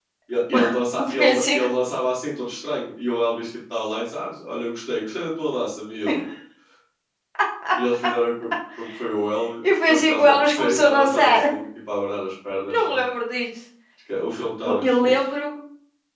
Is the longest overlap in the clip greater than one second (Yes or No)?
Yes